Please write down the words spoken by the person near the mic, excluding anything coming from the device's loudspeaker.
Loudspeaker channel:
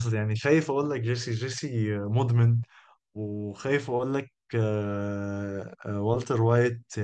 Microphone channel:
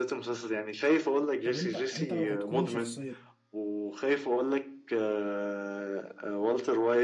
طب انت انت لو هتكون شخصية

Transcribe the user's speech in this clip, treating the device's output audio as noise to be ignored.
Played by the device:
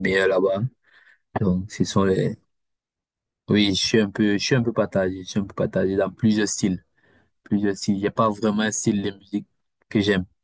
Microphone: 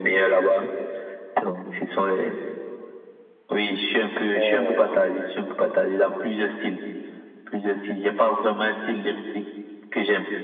euh,

